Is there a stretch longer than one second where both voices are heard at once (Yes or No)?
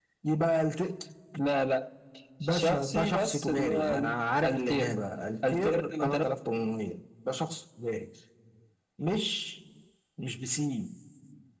Yes